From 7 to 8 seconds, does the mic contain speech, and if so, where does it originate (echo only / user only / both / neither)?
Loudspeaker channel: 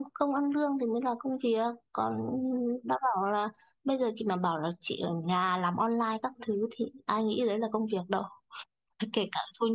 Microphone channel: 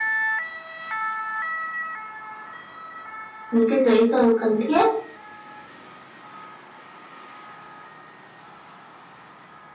neither